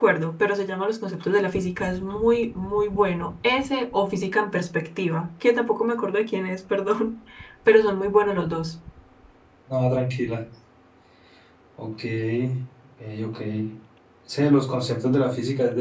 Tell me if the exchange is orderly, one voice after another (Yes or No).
Yes